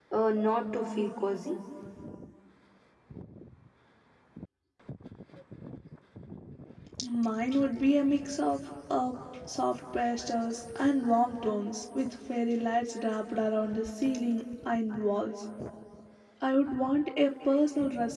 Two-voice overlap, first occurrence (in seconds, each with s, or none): none